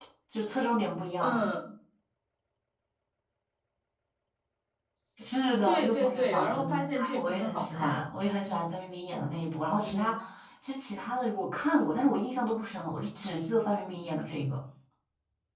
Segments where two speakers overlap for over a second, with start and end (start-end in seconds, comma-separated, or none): 5.7-8.0